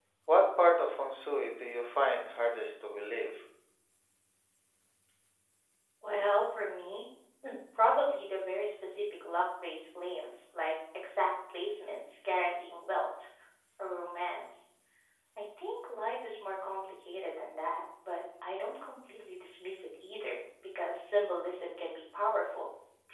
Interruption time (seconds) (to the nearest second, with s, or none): none